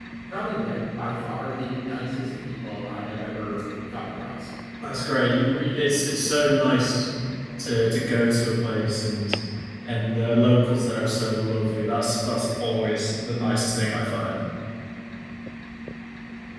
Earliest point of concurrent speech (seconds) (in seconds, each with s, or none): none